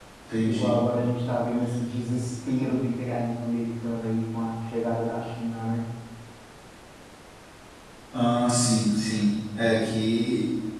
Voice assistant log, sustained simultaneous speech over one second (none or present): none